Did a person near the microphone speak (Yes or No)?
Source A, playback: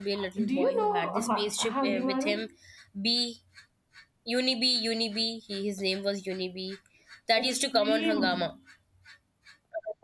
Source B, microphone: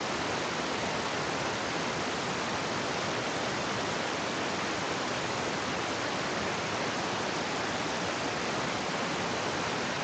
No